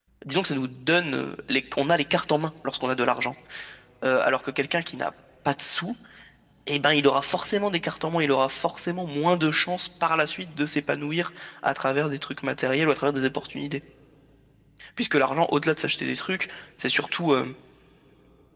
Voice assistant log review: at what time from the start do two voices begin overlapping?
none

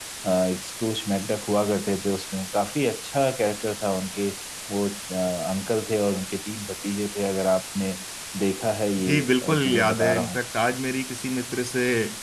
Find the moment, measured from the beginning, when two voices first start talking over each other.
9.1 s

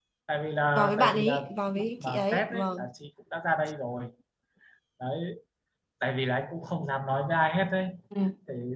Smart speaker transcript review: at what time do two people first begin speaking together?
0.8 s

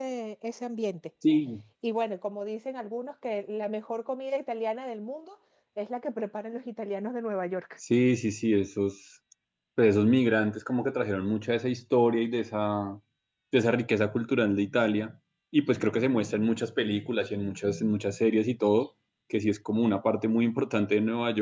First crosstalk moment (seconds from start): none

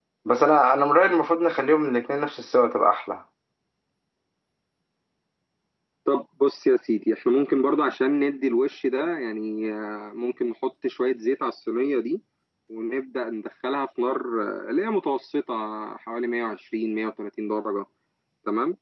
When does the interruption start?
none

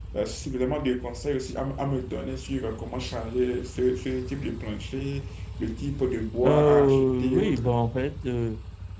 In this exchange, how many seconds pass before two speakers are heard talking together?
6.4 s

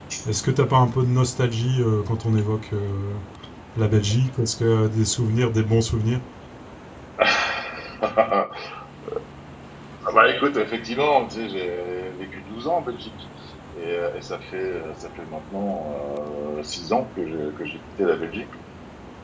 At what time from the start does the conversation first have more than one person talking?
none

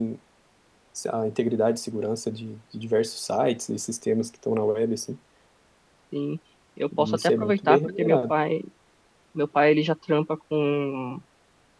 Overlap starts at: 7.0 s

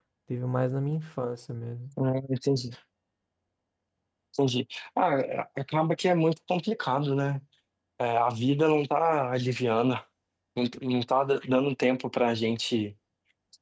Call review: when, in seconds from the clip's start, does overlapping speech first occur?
none

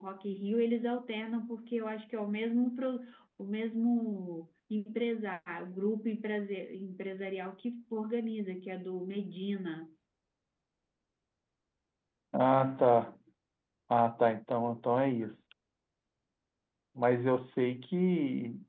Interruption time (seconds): none

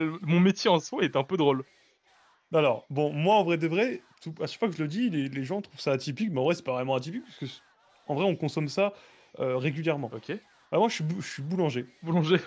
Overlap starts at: none

